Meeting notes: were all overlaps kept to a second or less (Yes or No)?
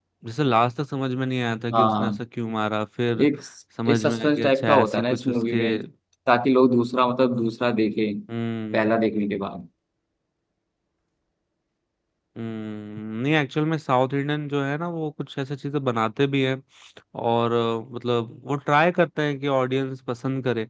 No